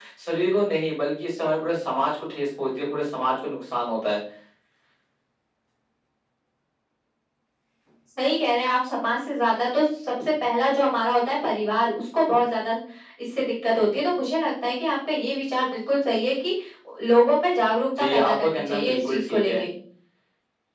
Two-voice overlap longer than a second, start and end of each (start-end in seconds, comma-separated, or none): 18.0-19.6